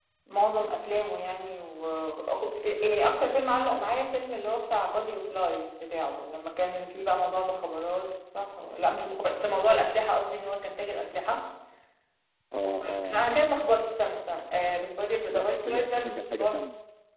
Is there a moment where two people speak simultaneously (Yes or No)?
Yes